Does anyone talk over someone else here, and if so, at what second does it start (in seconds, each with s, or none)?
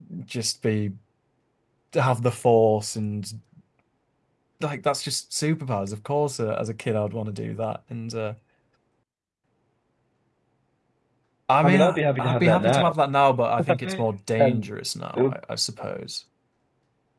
11.6 s